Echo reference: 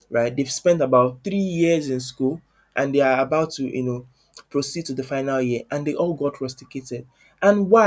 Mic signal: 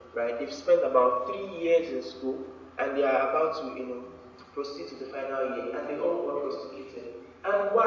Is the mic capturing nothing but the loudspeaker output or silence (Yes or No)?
Yes